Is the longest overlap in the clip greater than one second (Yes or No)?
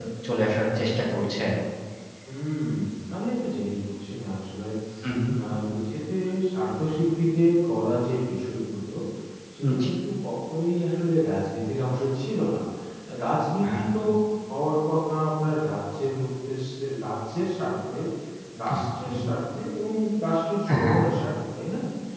No